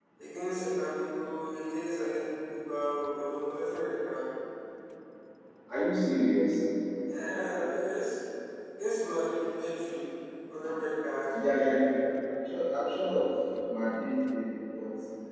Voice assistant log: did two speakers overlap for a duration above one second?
No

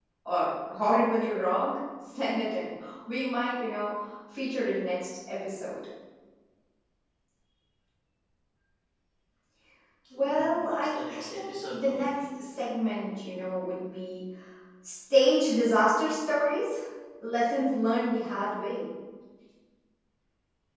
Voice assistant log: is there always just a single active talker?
No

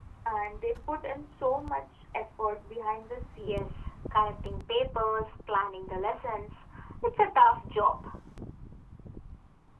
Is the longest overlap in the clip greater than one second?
No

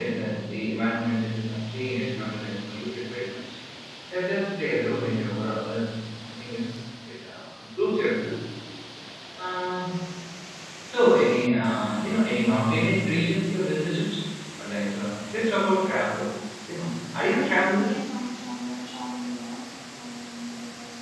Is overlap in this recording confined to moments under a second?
Yes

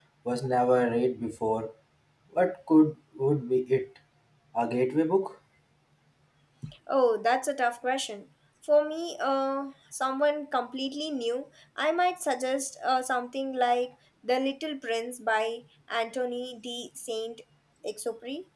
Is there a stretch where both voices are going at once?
No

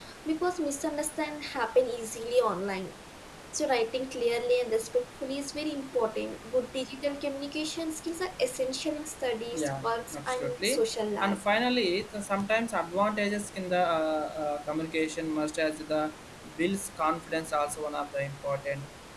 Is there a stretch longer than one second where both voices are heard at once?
Yes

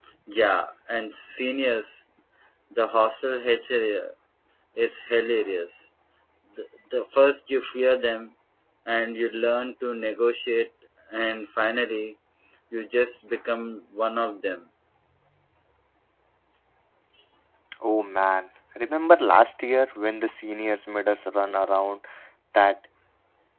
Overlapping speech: No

